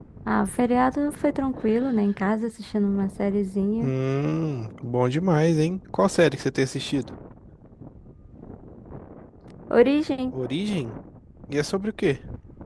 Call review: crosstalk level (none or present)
none